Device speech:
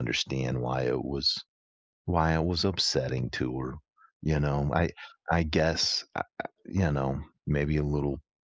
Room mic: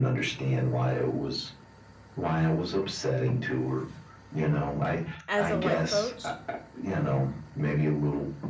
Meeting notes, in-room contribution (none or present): present